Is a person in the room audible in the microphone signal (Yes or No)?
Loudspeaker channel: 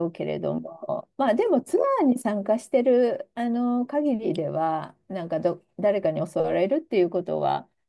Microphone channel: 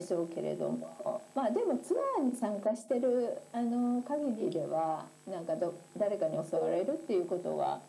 No